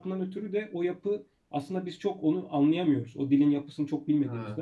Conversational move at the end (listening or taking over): listening